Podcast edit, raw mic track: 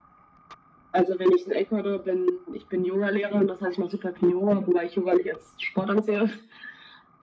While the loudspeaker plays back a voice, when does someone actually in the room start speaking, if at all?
none

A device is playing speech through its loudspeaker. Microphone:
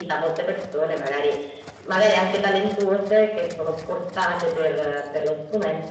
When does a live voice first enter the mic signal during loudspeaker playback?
none

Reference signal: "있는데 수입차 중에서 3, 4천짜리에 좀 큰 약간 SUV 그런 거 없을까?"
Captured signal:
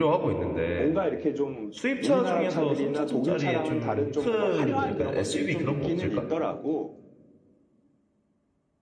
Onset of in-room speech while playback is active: 0.7 s

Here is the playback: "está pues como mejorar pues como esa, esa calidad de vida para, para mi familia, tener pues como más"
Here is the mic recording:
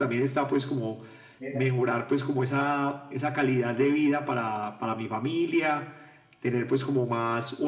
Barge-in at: 1.4 s

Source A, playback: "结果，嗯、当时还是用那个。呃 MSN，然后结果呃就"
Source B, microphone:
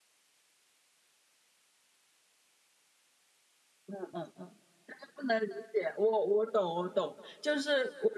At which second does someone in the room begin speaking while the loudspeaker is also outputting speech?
3.9 s

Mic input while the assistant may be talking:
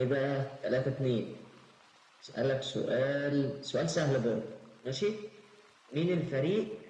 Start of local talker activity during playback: none

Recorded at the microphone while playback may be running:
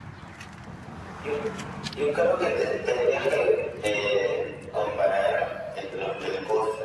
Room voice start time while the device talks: none

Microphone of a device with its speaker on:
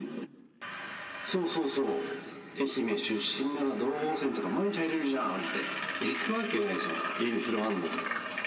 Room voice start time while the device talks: none

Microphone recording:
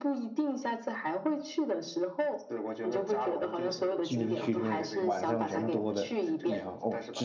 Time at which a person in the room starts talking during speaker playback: 4.0 s

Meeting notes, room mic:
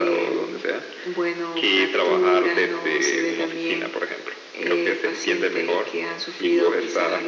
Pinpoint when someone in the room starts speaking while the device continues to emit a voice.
none

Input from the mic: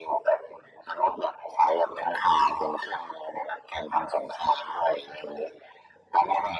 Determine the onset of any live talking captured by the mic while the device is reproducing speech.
none

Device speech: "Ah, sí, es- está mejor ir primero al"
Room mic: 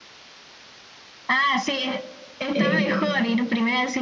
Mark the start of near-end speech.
2.5 s

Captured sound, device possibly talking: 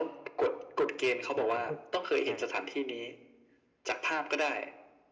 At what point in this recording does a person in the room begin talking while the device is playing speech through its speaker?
1.4 s

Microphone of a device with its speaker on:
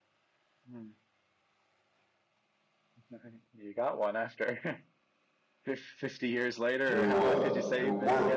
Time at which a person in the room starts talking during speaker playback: 6.9 s

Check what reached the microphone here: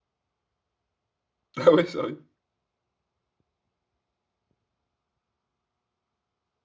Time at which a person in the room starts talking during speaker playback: 1.6 s

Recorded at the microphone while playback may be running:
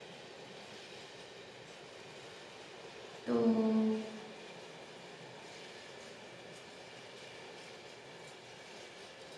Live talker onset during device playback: 3.2 s

